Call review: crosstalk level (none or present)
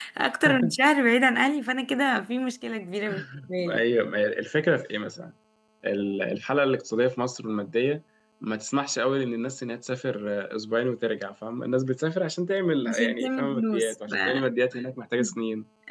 present